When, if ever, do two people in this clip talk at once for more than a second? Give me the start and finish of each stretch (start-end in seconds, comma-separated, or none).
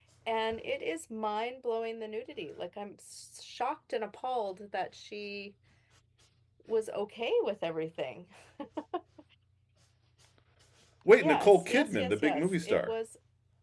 11.1-12.9